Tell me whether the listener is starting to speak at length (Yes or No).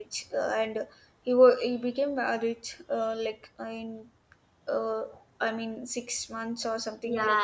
Yes